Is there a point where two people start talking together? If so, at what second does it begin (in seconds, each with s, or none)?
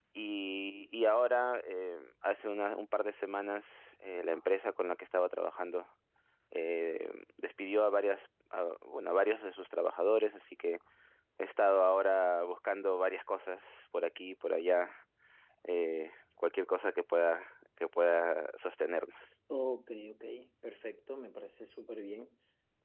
none